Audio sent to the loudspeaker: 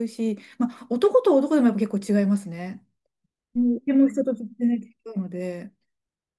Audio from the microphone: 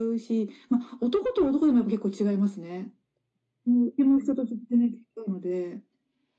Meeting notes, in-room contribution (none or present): none